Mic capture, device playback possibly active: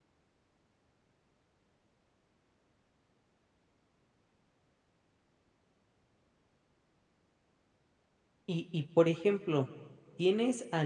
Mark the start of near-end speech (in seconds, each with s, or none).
8.5 s